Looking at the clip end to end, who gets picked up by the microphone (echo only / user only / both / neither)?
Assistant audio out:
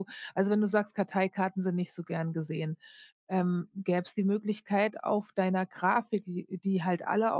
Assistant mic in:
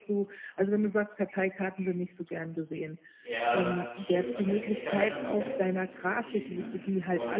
both